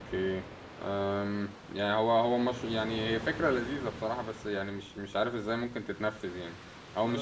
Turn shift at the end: No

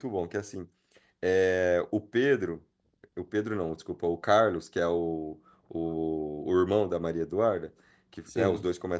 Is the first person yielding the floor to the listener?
No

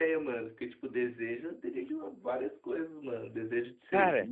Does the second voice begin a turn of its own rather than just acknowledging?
No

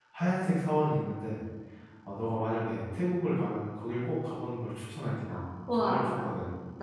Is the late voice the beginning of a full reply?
Yes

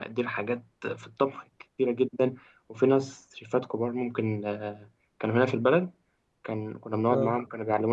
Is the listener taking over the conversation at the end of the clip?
No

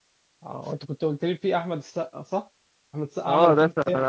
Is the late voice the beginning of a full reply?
Yes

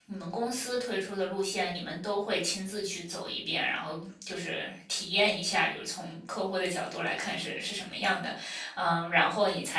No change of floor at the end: Yes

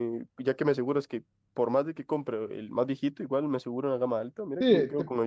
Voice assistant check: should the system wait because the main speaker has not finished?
No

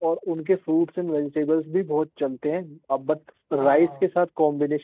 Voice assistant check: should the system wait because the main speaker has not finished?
Yes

